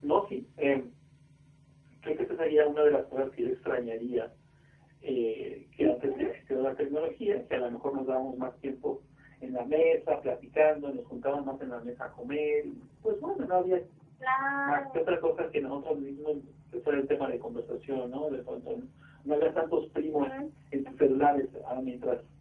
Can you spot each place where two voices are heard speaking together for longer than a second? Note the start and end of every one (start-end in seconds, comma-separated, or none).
none